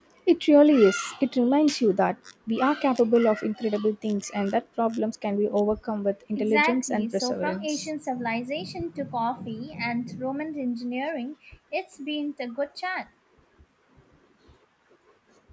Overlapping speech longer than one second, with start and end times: 6.4-7.9

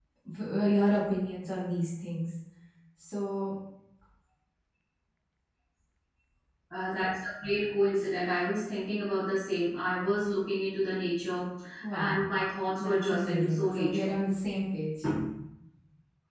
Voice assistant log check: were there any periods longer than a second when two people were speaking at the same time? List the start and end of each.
12.8-14.1

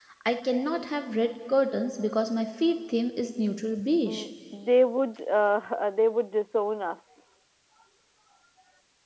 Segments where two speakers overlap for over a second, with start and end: none

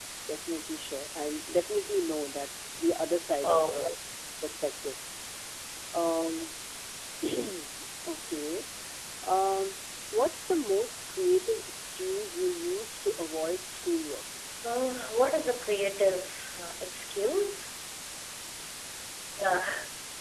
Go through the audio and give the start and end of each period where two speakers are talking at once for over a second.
none

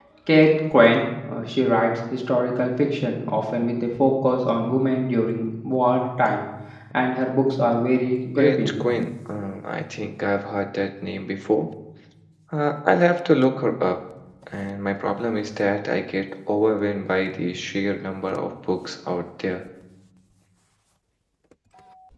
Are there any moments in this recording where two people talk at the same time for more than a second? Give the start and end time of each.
none

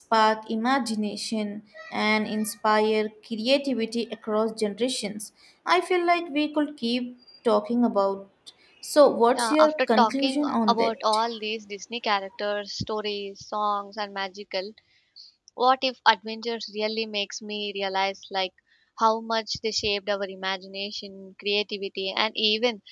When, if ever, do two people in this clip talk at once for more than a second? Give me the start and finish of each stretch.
9.3-11.2

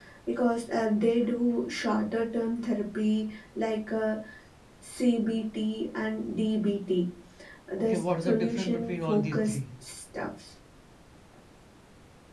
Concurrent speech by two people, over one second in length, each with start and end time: 7.9-9.6

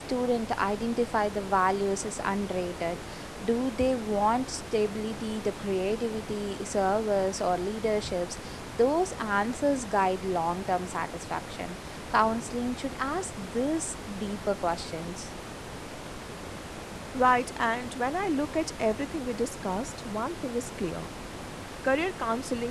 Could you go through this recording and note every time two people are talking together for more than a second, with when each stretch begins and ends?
none

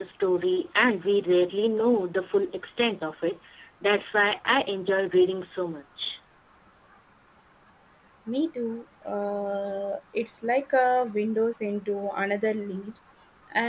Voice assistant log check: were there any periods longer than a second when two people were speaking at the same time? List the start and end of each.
none

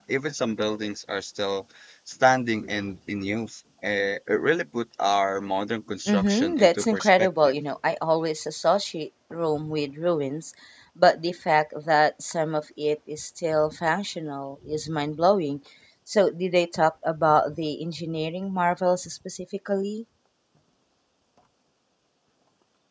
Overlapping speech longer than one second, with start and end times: 6.1-7.5

